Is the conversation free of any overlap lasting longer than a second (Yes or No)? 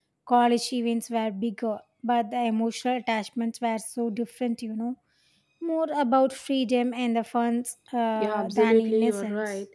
No